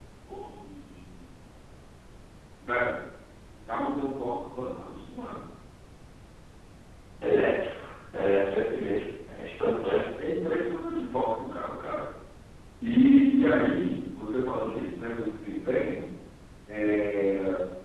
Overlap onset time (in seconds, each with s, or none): none